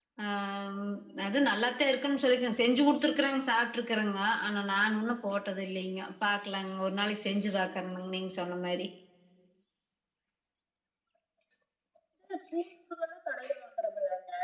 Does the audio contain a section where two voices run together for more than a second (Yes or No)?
No